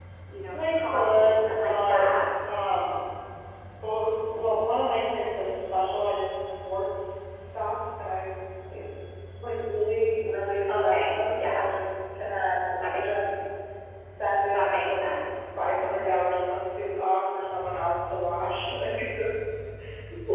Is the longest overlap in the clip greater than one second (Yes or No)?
Yes